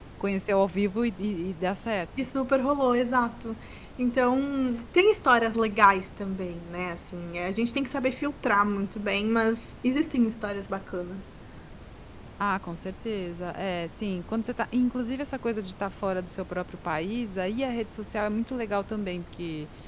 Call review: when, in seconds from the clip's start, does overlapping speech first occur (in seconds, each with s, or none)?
none